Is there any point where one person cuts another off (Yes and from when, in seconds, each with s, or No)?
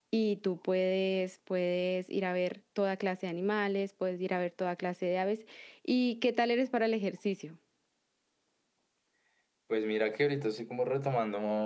No